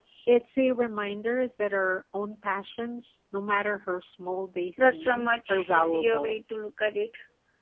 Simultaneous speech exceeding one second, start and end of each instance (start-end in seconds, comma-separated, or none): 4.8-6.4